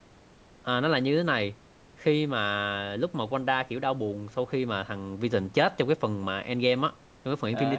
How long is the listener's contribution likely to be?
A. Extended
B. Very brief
A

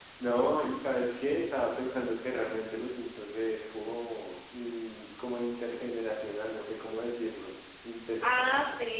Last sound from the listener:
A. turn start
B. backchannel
A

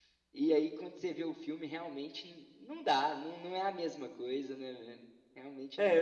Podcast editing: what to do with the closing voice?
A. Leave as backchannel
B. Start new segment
B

